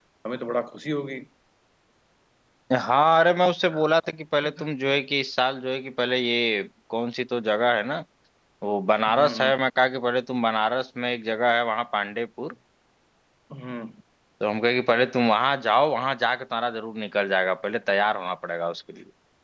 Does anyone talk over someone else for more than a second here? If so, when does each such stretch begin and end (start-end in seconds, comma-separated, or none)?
none